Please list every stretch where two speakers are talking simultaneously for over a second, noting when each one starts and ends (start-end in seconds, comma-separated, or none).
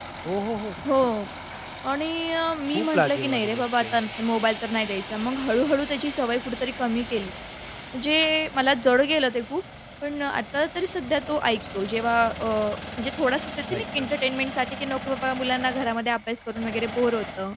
2.7-4.0